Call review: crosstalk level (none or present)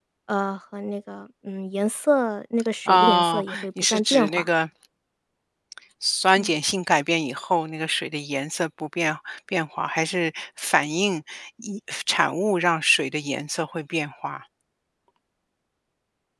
present